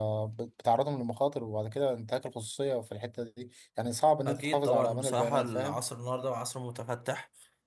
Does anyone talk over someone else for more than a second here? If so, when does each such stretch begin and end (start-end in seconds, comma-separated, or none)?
4.2-5.8